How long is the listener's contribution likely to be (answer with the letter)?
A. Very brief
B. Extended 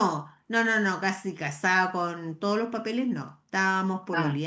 A